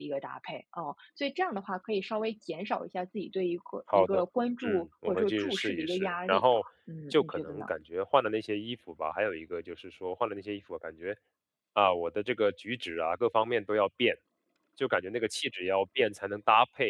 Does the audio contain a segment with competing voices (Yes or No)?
Yes